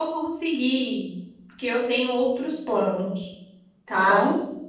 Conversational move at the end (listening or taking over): taking over